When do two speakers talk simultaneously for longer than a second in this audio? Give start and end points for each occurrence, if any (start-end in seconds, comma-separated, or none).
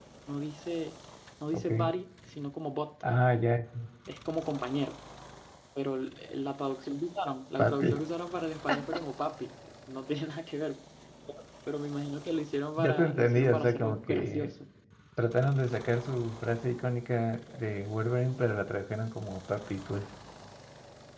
12.8-14.5